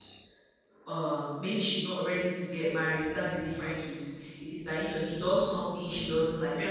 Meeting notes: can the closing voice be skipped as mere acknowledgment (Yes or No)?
Yes